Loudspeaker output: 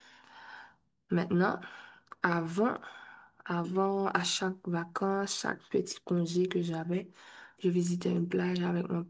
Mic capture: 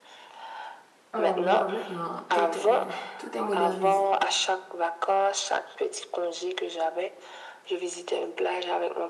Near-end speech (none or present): present